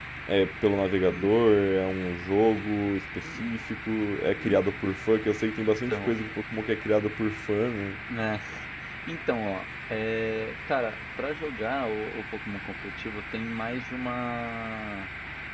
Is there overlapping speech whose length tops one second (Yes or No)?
No